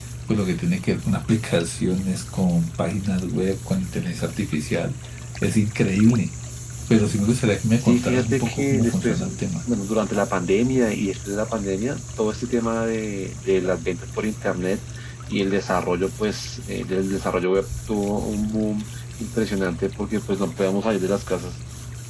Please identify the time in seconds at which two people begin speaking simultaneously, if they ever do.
8 s

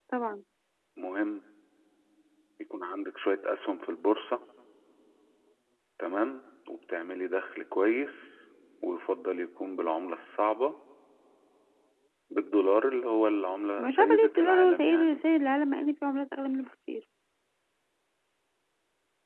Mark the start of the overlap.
14 s

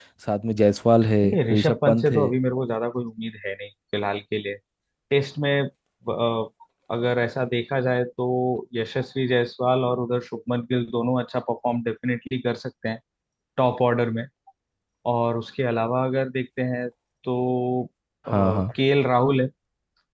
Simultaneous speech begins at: 1 s

